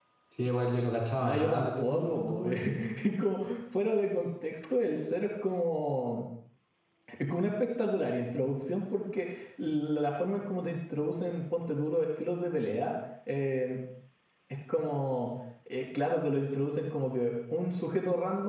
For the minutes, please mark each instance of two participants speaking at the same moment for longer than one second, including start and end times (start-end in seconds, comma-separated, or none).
1.2-2.6